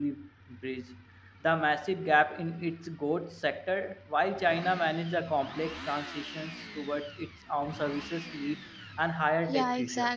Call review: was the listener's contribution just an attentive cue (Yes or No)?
No